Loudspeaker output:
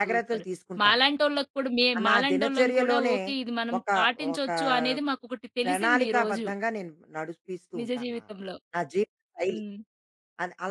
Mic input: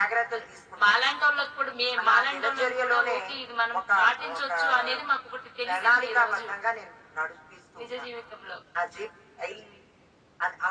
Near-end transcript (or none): none